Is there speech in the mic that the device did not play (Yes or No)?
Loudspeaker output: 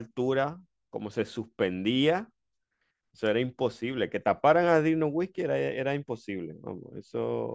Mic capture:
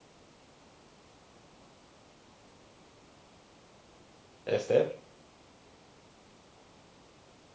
Yes